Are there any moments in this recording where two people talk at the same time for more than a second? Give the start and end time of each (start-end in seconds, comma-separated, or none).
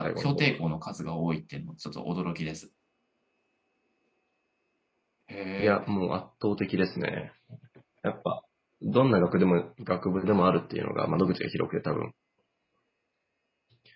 none